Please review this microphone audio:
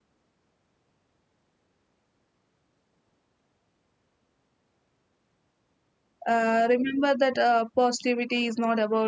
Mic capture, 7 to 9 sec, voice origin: user only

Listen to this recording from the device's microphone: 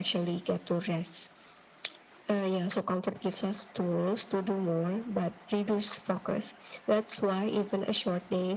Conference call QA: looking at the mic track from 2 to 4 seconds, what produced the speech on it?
echo only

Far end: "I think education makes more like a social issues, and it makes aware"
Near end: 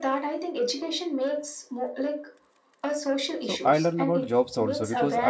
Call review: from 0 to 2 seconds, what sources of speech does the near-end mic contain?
echo only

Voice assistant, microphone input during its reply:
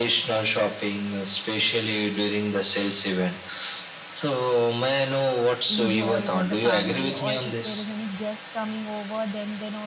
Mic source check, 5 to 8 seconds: both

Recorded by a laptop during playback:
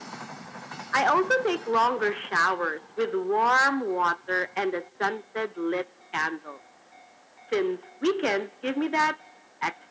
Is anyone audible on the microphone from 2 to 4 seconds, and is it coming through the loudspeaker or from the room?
echo only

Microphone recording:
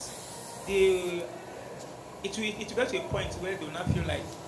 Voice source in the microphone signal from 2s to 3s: user only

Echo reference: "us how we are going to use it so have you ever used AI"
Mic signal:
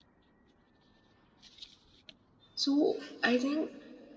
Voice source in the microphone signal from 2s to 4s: user only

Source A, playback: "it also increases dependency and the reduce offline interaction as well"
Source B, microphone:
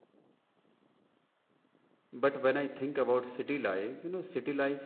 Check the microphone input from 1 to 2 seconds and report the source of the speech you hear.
neither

